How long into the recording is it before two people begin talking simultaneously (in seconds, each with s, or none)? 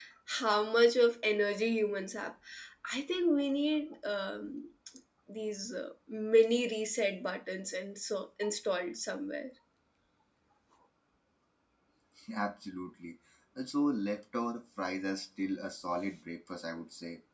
none